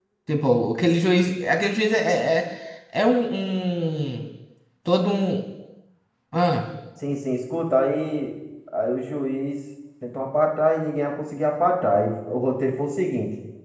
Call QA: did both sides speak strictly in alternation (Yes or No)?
Yes